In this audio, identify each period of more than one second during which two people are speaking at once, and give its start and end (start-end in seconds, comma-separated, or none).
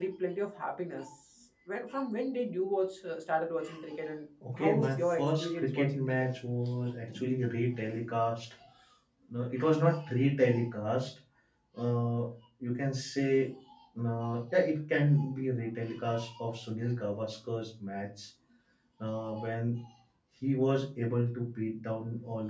4.5-6.3